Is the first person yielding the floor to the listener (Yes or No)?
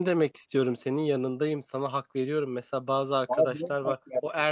No